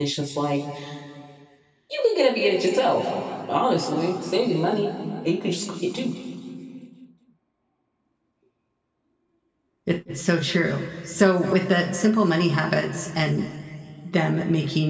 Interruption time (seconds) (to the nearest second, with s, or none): none